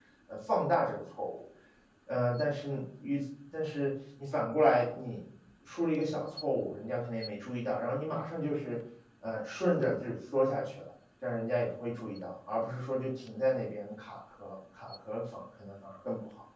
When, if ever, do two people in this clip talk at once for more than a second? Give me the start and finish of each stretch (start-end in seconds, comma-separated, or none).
none